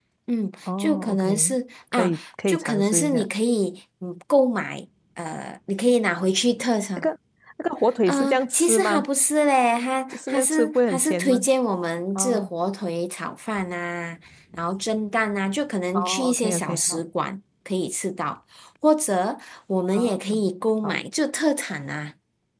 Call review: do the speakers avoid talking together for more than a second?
No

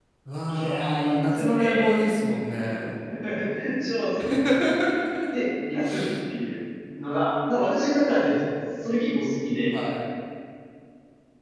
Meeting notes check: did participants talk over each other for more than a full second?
Yes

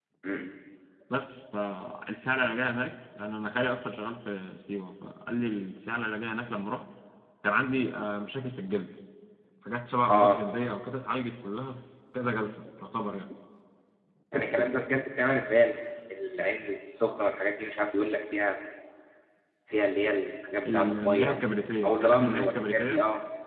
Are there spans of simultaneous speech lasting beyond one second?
Yes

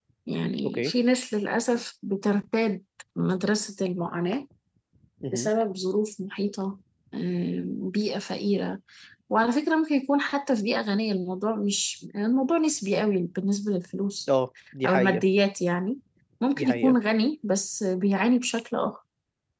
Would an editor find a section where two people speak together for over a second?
No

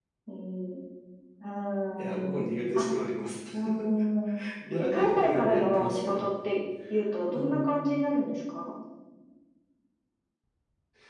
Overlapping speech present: Yes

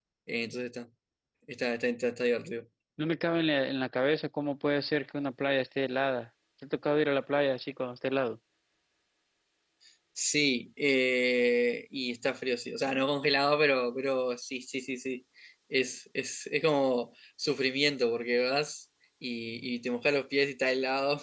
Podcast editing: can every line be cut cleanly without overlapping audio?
Yes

